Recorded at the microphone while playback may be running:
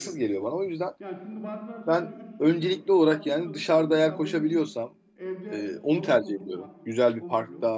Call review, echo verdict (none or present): present